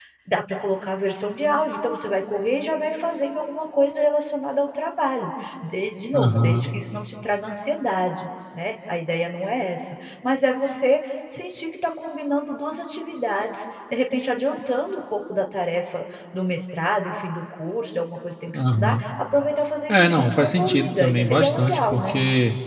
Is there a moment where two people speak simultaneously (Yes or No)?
Yes